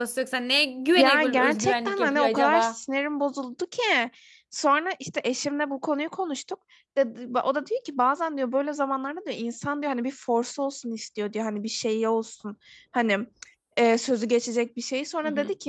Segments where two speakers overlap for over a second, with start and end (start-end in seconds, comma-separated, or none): 1.0-2.8